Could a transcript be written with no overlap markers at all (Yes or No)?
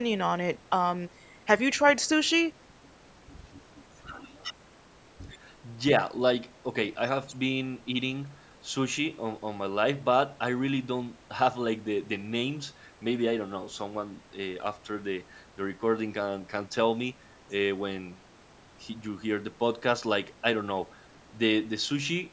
Yes